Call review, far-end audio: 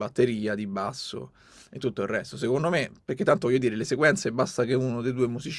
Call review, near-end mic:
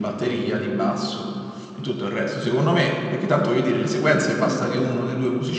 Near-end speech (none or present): none